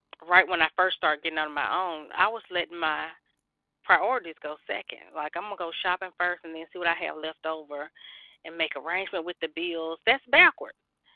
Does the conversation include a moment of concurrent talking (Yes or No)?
No